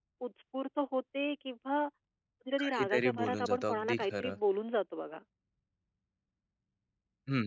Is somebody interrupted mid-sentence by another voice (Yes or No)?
Yes